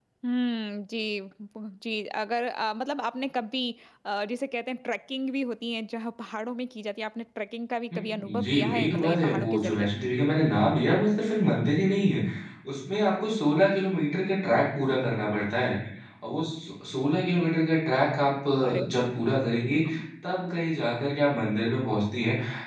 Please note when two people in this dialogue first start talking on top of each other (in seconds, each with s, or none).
8.4 s